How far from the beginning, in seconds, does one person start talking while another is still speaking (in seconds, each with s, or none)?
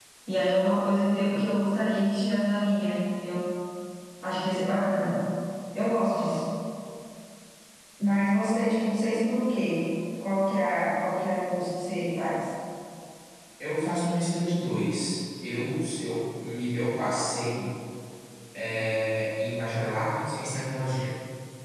none